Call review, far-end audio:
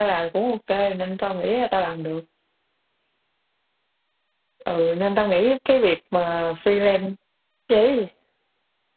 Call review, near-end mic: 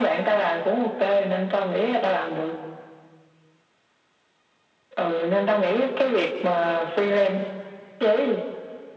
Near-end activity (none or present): none